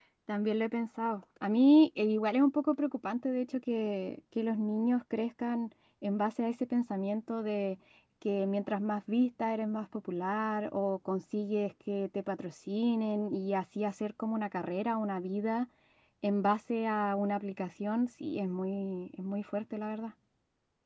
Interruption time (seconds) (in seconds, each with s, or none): none